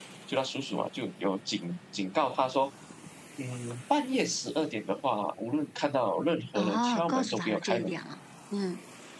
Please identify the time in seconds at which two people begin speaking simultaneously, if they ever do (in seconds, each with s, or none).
6.5 s